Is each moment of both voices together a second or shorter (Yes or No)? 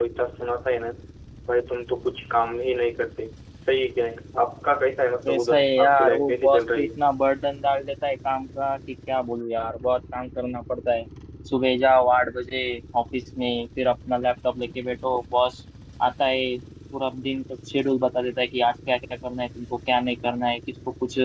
No